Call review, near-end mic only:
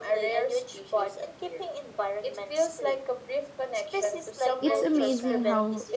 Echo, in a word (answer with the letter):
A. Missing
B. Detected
B